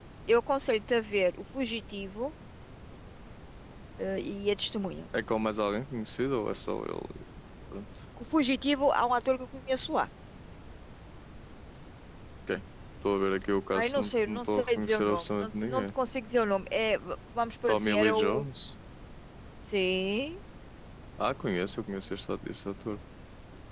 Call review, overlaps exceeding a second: present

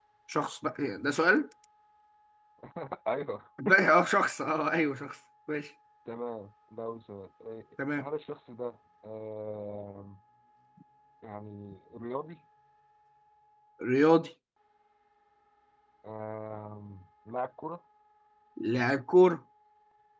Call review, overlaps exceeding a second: none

